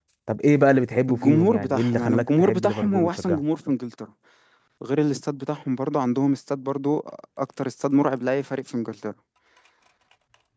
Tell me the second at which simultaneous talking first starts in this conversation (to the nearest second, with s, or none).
1 s